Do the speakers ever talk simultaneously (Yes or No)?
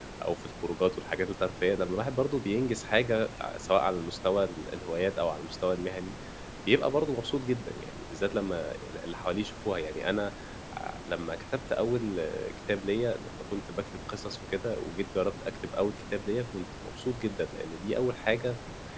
No